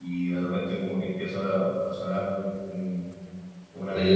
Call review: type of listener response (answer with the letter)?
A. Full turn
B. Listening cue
A